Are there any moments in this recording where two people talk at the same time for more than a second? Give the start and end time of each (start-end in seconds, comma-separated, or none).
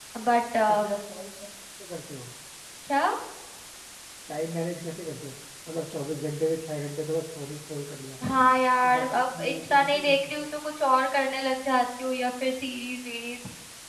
8.8-10.4